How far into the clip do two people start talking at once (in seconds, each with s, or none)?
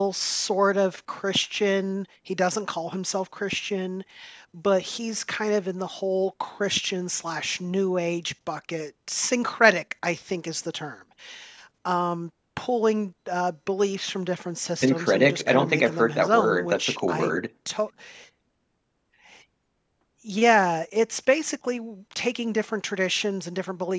14.8 s